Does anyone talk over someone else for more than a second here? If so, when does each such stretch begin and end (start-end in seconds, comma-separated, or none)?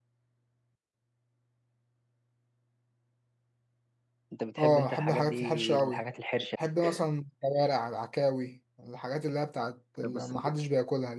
4.6-6.0